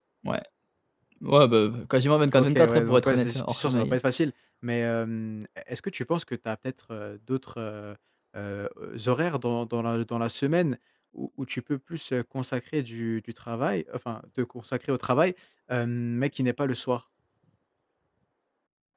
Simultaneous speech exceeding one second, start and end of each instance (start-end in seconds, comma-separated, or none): 2.3-4.0